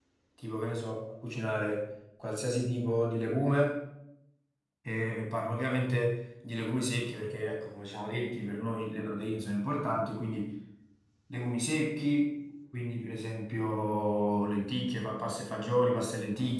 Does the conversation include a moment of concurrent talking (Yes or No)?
No